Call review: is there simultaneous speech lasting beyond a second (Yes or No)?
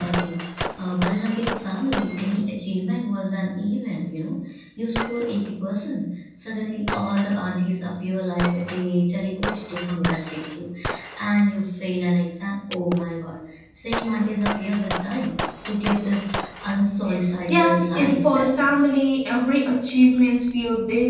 Yes